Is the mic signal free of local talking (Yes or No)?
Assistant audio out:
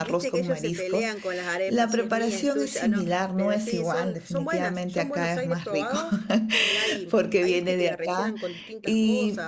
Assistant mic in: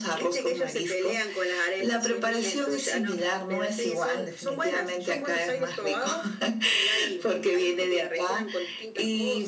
Yes